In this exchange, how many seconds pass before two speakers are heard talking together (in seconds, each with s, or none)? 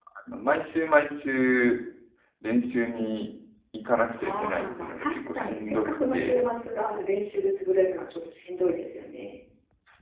4.2 s